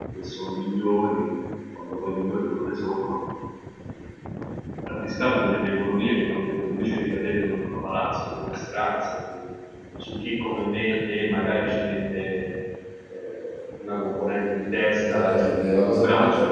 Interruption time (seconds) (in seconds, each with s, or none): 15.0 s